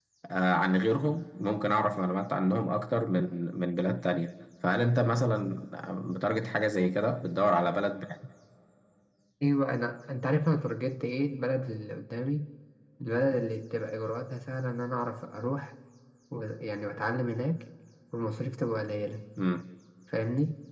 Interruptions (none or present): none